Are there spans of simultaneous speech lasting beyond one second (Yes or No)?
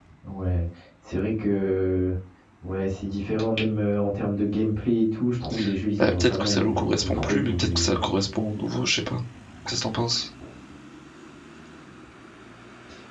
Yes